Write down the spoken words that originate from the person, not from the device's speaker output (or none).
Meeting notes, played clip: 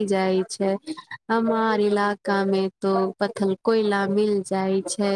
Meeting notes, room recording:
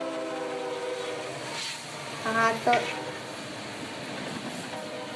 हँ तऽ